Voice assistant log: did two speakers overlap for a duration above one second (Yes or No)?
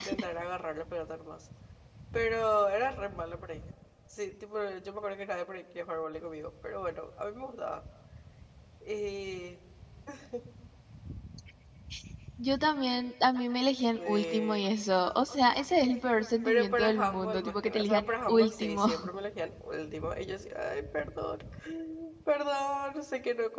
Yes